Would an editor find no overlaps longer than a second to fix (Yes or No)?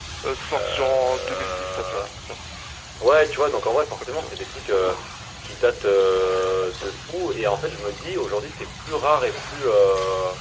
No